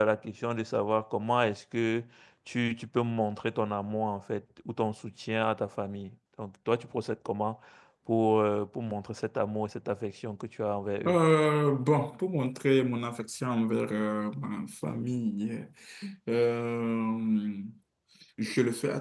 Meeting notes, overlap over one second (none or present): none